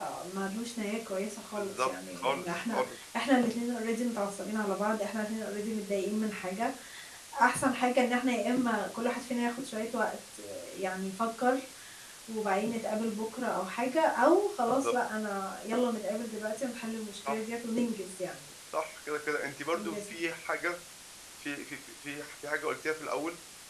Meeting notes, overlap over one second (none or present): present